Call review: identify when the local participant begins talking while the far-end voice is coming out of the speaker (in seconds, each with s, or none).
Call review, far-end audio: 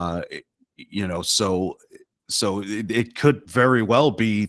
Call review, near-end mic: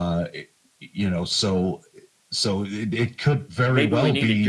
3.6 s